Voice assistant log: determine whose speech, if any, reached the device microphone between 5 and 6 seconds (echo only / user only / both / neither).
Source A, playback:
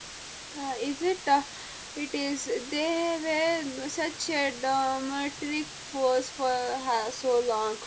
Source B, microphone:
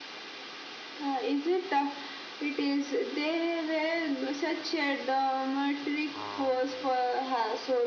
echo only